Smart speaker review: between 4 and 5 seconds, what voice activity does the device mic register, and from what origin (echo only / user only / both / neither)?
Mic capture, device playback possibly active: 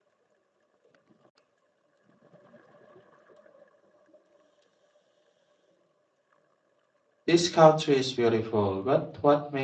neither